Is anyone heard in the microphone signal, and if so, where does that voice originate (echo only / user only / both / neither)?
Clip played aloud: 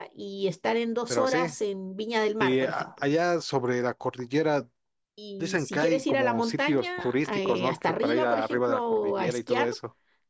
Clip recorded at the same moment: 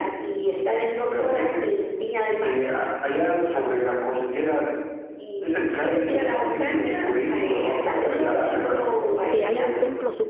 both